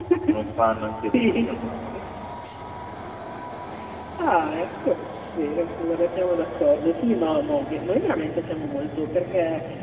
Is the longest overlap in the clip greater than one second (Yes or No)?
No